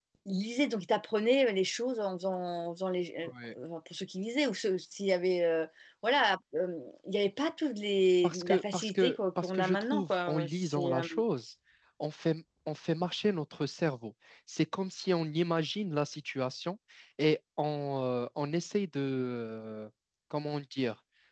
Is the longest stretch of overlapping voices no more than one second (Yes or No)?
No